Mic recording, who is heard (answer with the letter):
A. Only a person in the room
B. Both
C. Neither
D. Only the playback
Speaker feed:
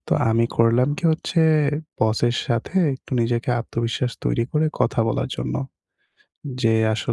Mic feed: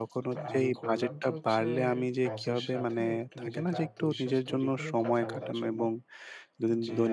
B